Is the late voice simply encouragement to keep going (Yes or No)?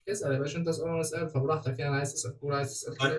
No